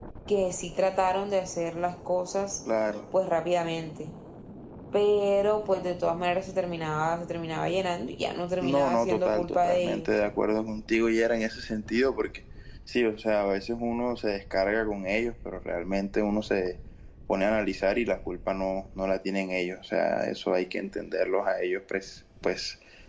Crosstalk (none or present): present